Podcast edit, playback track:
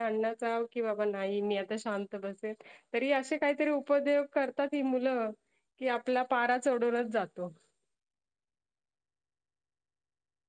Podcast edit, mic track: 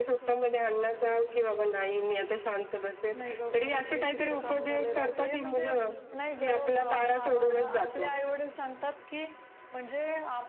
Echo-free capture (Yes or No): No